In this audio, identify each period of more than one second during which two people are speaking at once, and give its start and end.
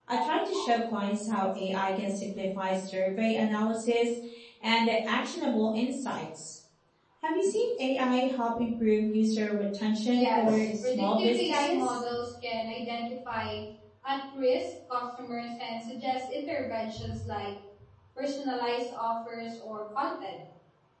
10.1-12.0

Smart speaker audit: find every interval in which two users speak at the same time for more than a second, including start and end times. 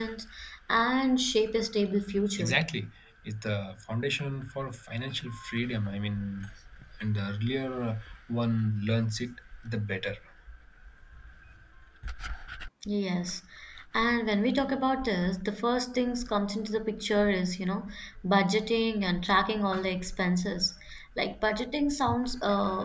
none

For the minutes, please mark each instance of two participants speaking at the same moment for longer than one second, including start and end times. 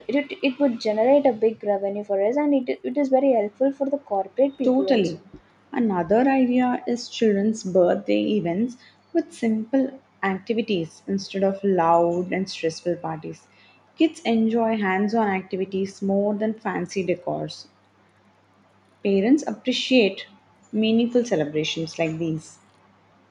none

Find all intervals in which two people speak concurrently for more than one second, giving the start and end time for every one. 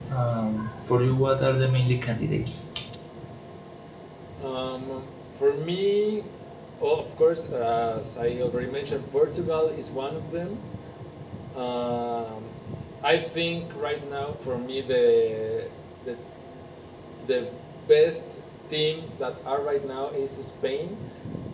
none

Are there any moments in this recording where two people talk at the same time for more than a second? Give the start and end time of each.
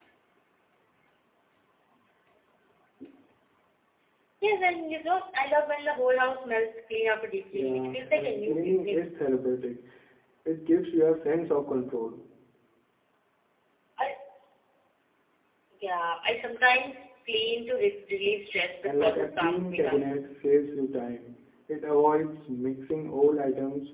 7.5-9.1, 18.8-20.1

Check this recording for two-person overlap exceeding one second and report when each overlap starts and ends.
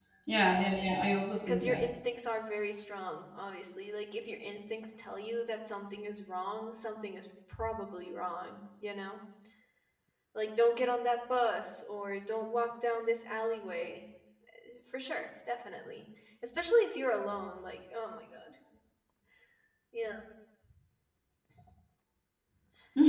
none

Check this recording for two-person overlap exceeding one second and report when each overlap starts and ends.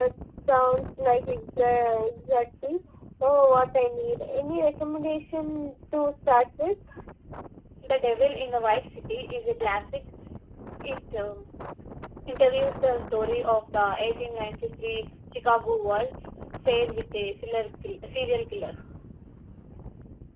none

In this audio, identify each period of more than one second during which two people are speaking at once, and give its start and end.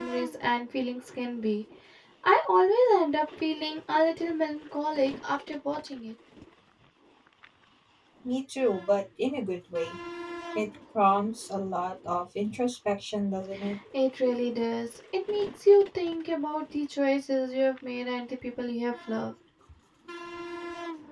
none

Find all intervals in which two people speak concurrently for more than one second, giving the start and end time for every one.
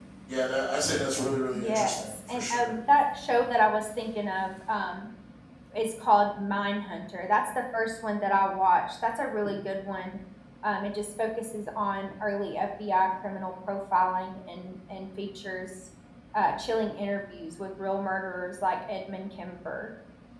1.5-2.7

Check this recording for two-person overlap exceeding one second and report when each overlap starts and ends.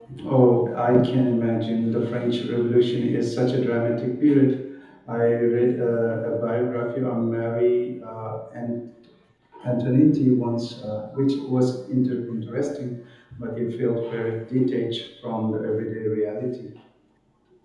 none

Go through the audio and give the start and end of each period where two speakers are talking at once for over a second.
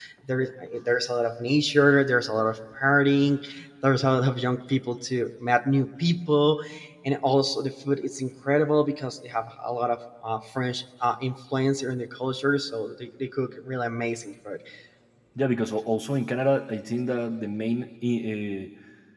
none

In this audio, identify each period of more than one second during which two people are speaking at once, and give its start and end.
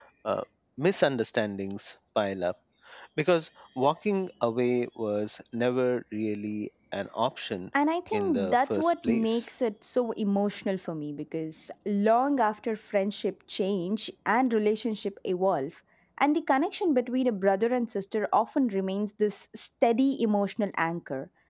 8.1-9.5

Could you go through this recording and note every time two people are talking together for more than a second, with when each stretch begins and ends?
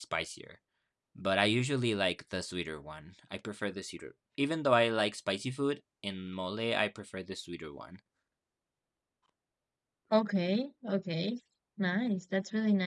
none

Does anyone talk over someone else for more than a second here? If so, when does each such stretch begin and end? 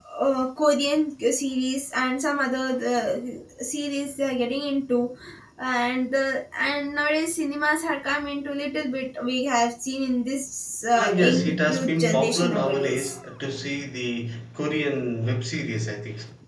10.9-13.0

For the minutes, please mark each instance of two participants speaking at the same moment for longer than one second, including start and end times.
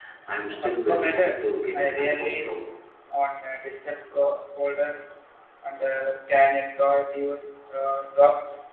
0.6-2.5

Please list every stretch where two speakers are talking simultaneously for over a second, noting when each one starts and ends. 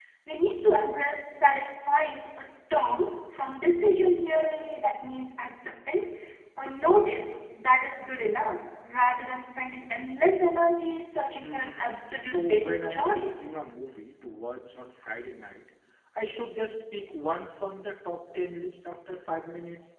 11.4-13.5

